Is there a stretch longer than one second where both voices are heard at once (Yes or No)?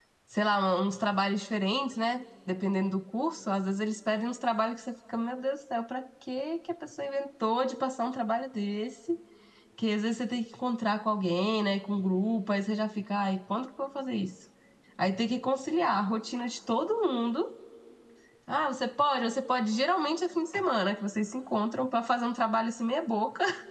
No